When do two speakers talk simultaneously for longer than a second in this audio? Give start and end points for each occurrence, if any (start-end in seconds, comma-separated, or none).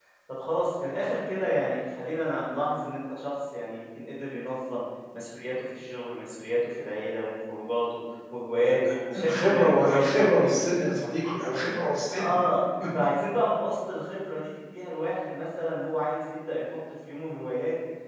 8.6-10.5